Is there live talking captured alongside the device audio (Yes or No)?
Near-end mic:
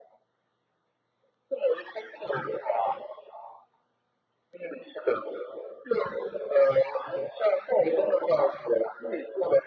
No